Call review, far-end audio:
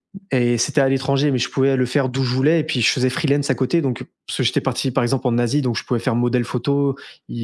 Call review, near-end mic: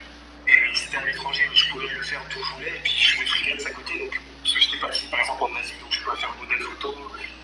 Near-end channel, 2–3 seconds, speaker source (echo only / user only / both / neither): echo only